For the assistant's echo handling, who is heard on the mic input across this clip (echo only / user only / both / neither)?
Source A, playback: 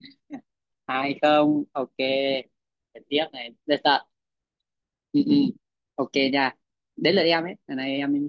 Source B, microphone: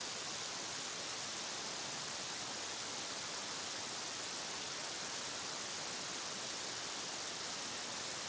neither